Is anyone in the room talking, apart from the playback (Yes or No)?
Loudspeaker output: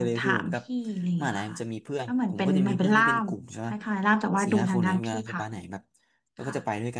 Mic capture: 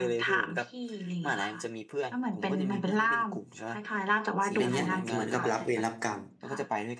Yes